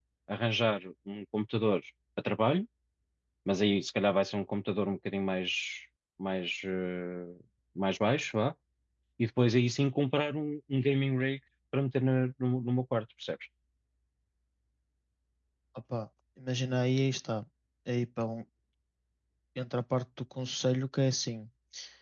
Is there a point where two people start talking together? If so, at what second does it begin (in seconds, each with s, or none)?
none